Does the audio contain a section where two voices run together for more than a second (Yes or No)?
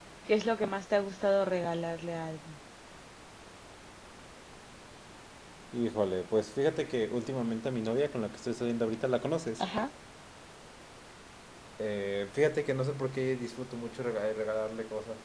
No